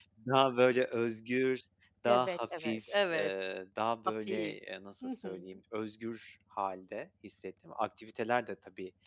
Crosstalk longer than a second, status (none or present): present